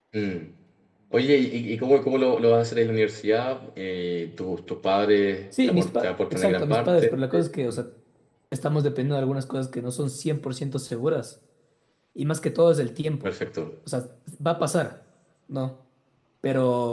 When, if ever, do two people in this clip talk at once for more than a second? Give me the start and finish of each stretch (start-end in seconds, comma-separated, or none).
5.7-7.1